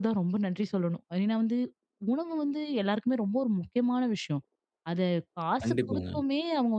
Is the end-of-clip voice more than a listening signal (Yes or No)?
No